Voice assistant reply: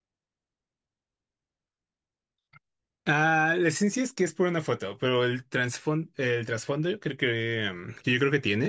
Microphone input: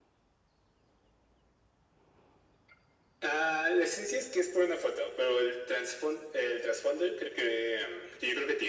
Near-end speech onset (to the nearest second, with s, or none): none